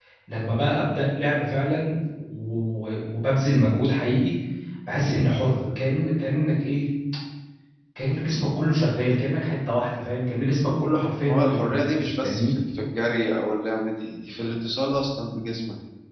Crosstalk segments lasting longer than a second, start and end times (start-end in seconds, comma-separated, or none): 11.3-12.5